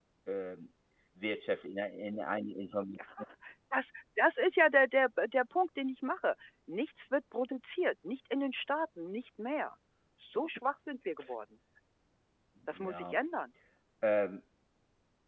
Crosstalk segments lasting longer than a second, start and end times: none

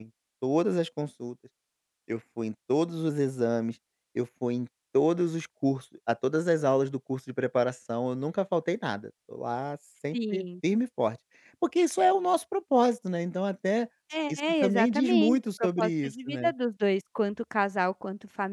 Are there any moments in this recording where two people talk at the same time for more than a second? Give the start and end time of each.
14.3-16.5

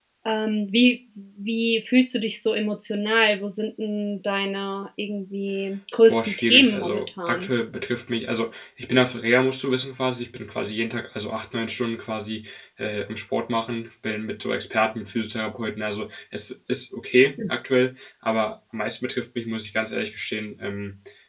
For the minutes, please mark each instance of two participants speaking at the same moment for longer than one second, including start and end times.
6.0-7.5

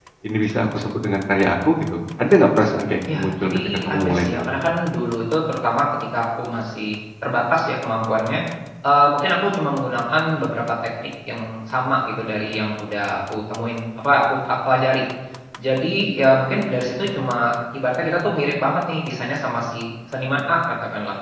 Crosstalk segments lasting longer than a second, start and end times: 3.1-4.5

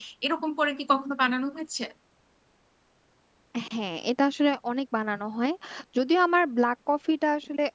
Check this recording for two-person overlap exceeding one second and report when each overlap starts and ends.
none

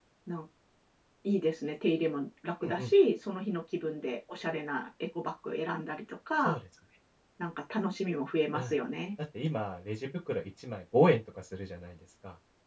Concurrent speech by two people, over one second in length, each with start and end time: none

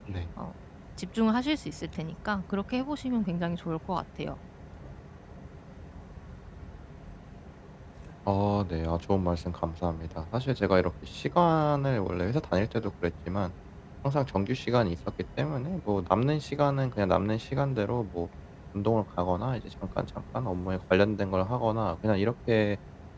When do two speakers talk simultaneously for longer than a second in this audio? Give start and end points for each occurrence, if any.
none

